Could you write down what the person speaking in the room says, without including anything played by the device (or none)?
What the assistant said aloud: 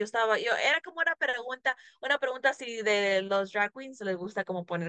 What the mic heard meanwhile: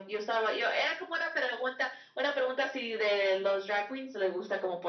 none